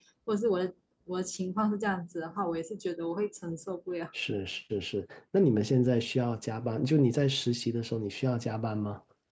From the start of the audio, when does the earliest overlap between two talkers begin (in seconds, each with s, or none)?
none